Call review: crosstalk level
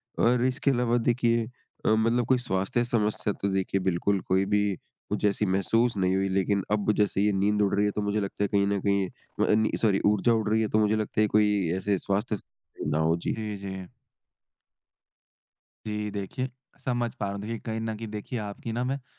none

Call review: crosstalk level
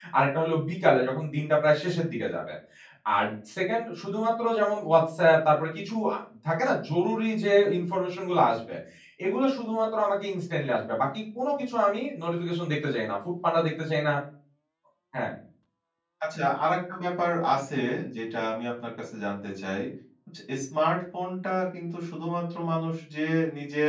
none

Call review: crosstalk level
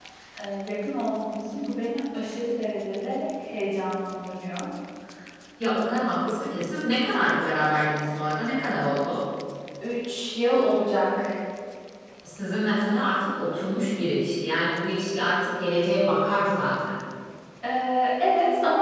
none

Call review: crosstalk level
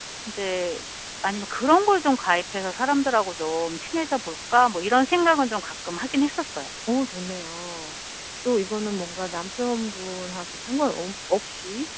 none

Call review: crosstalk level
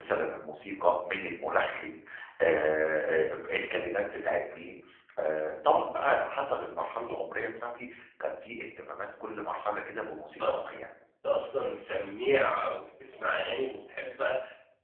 none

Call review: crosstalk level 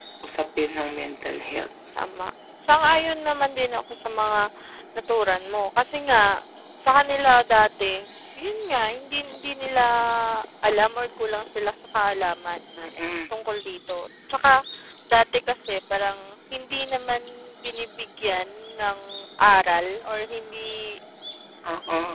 none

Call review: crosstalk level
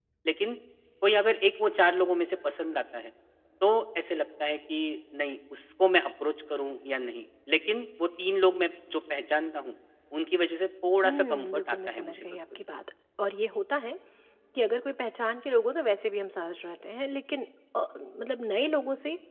present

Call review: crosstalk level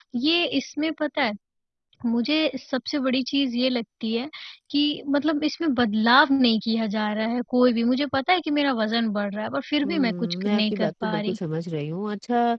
present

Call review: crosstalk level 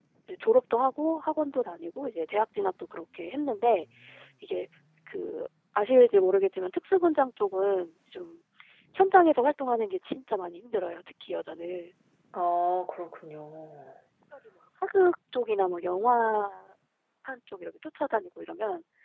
none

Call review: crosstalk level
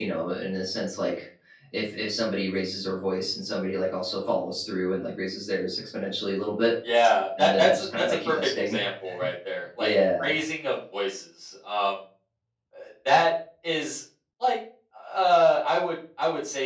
present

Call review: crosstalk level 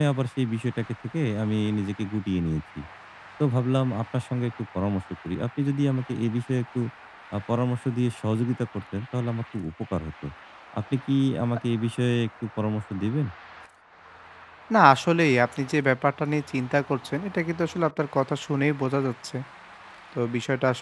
none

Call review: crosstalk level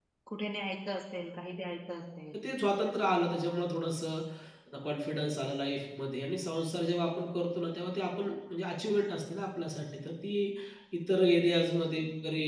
none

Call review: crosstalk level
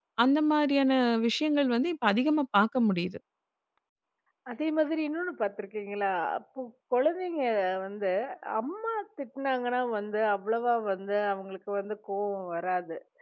none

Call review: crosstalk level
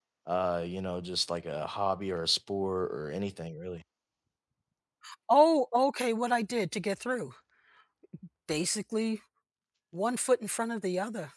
none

